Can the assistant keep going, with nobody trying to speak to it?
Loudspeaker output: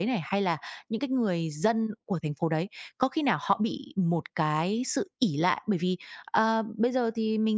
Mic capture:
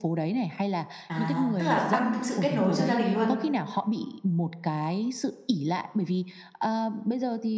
No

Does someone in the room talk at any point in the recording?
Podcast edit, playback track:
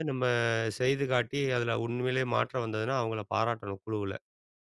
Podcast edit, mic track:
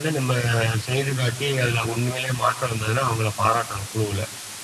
No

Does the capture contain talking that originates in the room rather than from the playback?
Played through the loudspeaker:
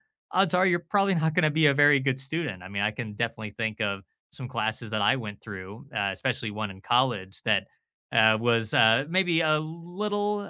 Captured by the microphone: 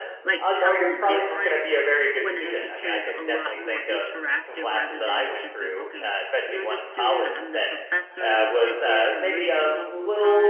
Yes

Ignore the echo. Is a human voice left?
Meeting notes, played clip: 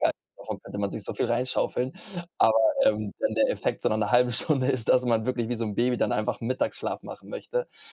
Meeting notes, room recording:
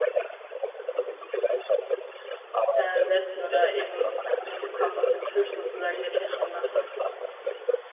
Yes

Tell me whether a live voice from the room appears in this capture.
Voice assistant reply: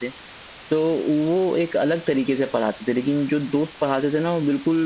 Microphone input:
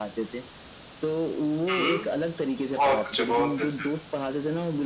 Yes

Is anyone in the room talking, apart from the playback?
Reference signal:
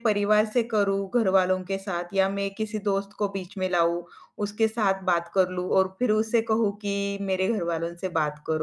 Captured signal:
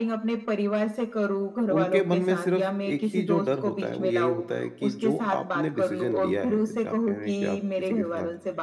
Yes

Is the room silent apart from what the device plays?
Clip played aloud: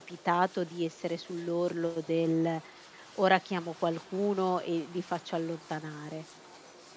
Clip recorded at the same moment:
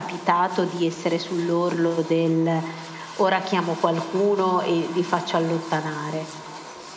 Yes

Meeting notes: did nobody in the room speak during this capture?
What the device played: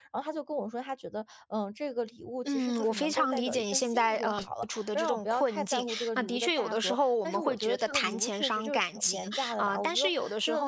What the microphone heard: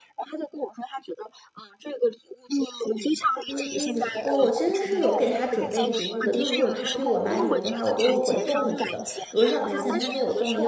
No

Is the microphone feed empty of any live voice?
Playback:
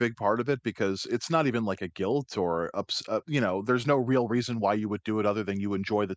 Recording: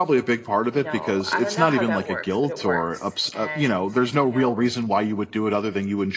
No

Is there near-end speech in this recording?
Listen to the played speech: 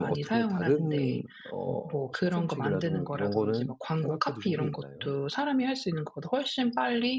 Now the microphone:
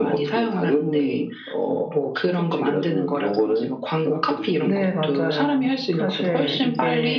Yes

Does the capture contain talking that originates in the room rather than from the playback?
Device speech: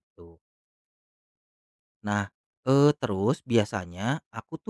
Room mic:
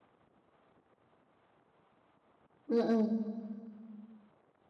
Yes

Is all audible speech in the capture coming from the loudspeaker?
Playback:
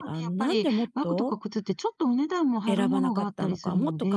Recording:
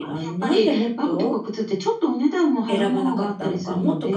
Yes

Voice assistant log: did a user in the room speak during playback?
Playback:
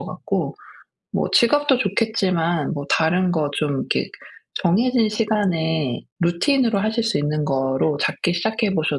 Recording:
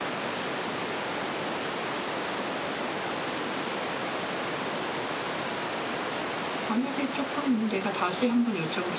Yes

